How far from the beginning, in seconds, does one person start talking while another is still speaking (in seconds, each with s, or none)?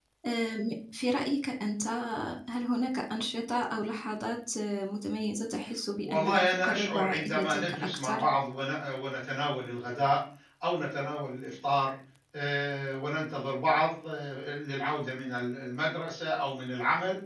6.0 s